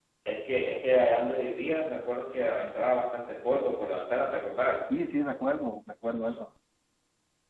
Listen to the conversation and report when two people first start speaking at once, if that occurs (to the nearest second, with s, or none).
none